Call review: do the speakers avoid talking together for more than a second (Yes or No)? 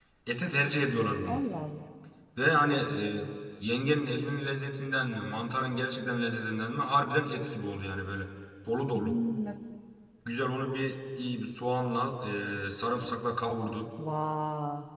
Yes